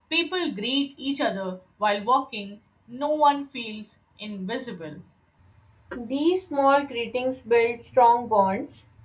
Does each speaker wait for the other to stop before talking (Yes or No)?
Yes